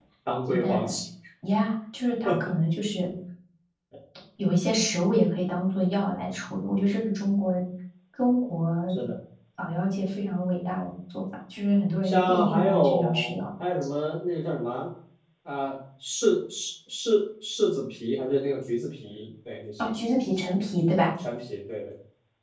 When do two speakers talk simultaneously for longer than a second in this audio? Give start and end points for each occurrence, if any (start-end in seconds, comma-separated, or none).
12.0-13.4